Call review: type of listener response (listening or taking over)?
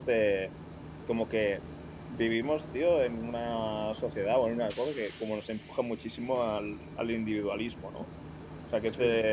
taking over